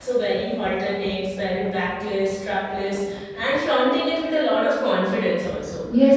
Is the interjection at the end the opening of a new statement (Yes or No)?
Yes